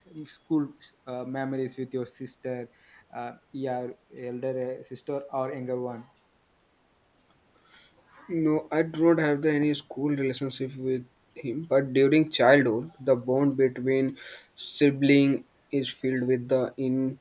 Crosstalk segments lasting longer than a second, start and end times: none

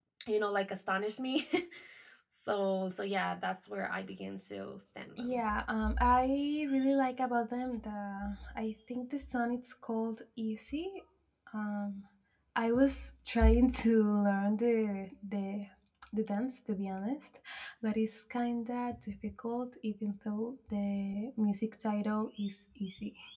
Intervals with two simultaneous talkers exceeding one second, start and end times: none

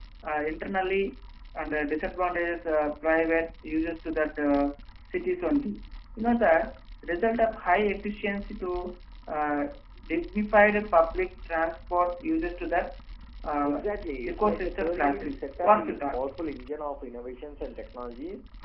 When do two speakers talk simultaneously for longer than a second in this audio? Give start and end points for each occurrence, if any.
14.3-16.2

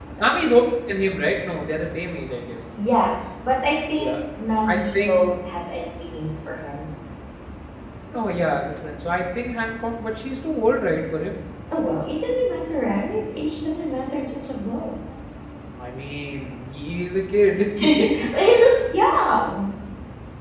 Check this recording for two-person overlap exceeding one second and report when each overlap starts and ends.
none

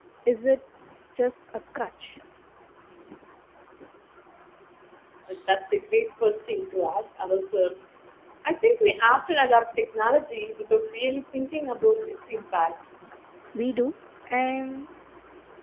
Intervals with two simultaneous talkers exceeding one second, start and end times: none

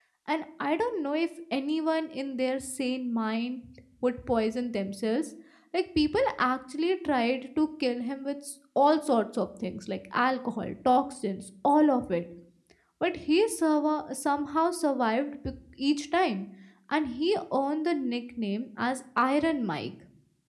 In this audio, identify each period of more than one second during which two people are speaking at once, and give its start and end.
none

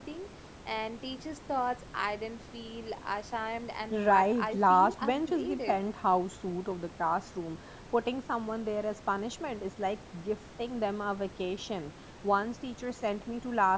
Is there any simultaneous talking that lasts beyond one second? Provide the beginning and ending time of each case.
3.9-5.8

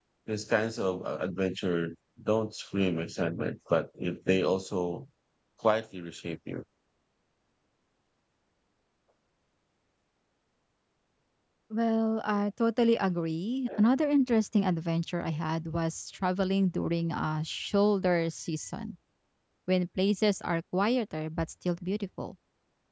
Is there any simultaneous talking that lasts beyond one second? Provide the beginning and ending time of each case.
none

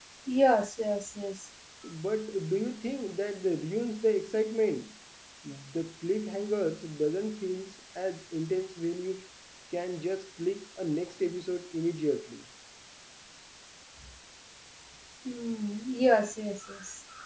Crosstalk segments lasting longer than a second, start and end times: none

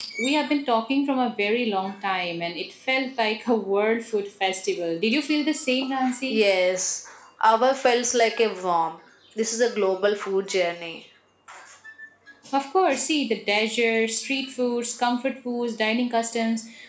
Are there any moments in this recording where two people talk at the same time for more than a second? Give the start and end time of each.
none

